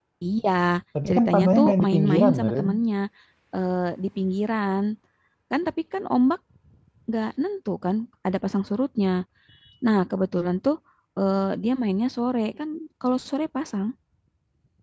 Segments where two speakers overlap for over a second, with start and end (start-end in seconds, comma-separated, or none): 1.1-2.7